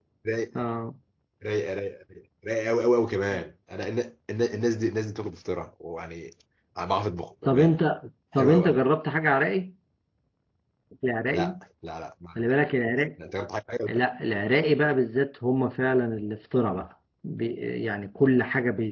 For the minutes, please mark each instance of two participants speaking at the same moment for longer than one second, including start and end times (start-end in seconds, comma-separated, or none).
none